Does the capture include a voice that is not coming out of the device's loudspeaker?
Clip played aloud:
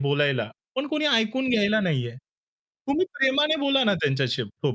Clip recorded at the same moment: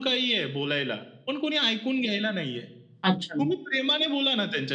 Yes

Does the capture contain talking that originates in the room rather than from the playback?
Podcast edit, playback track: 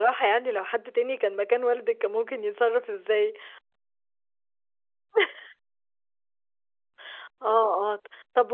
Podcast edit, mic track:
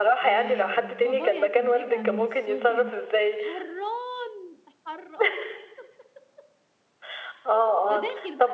Yes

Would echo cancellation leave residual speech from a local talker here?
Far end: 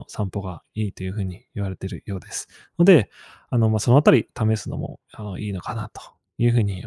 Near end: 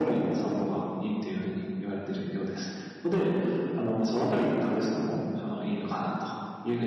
No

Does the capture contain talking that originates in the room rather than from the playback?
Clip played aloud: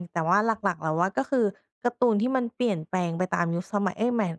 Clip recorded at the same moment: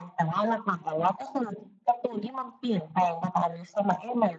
No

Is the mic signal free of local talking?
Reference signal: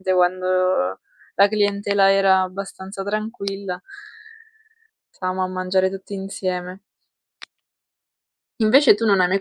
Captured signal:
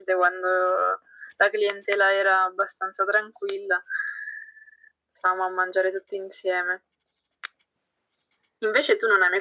Yes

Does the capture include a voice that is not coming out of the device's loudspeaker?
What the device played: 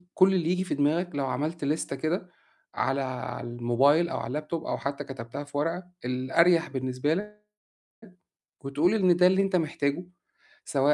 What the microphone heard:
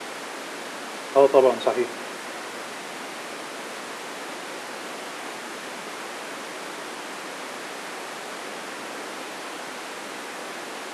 Yes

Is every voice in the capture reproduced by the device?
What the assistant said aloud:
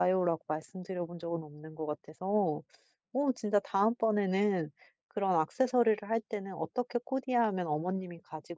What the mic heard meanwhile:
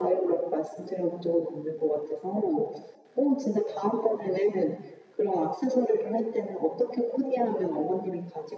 Yes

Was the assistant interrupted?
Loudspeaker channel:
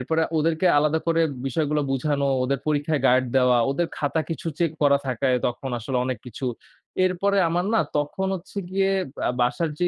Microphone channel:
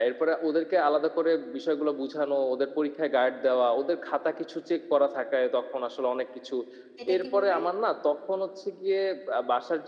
Yes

